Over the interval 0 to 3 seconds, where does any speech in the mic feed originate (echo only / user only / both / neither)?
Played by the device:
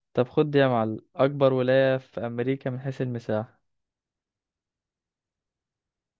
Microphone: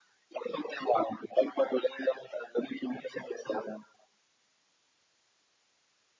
echo only